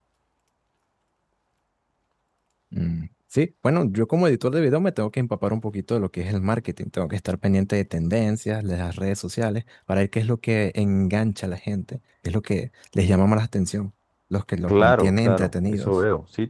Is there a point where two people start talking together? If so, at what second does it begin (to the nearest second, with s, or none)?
15 s